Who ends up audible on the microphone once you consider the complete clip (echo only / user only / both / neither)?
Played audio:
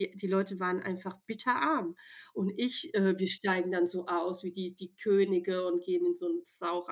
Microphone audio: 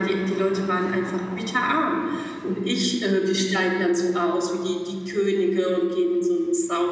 echo only